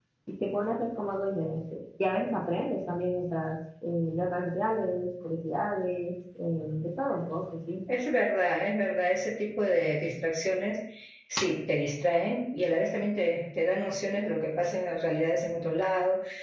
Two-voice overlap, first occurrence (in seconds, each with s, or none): none